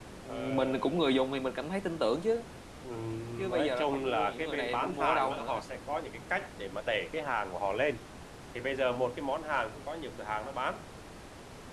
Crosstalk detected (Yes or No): Yes